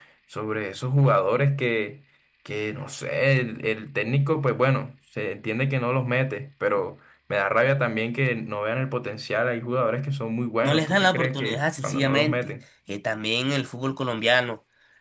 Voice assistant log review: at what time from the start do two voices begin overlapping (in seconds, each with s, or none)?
10.6 s